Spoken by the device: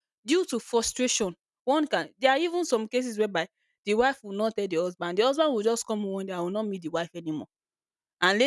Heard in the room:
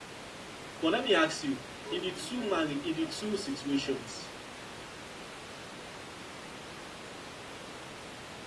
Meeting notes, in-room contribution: present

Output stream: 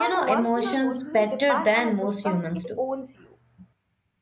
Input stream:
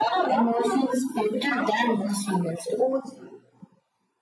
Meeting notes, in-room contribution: none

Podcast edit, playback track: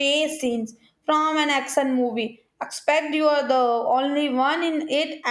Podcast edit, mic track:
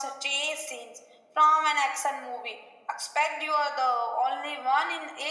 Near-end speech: none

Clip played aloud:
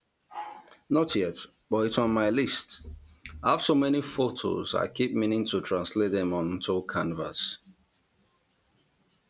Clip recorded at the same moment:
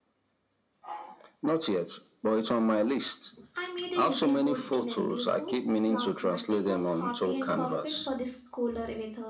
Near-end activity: present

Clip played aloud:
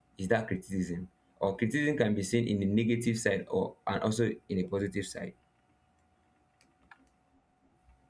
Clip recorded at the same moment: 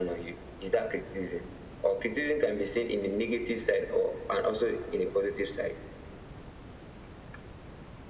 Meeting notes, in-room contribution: none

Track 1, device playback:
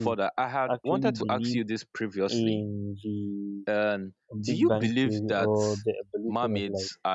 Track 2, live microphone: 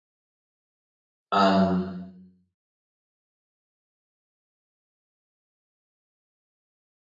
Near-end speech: present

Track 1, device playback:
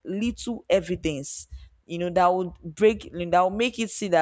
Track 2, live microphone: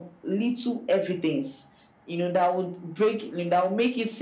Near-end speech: none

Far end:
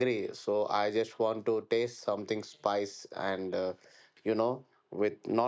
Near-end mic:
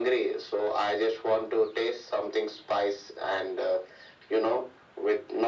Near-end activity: none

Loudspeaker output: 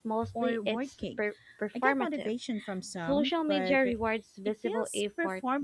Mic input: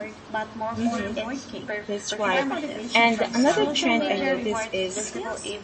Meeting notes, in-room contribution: present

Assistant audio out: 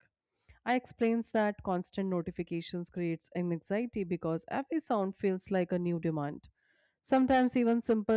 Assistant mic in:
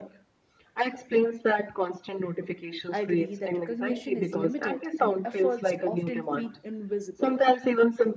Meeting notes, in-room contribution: present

